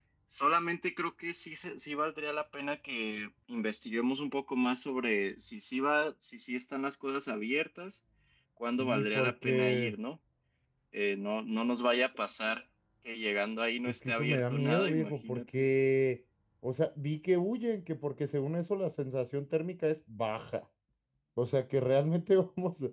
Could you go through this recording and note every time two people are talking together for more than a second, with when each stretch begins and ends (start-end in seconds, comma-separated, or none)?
8.7-9.9, 13.8-15.7